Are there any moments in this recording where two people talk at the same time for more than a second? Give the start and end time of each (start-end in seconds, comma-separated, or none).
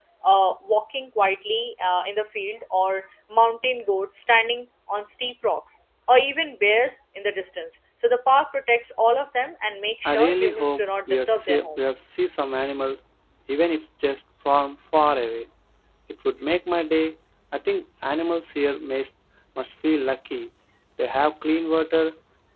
10.1-11.8